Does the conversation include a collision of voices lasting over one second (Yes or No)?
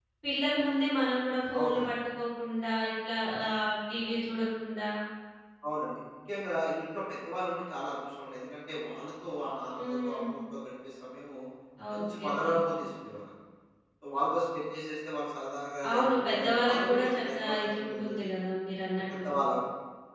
Yes